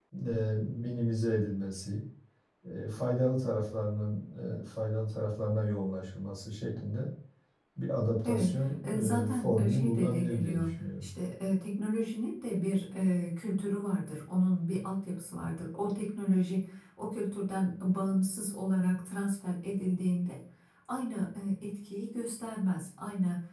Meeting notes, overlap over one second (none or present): present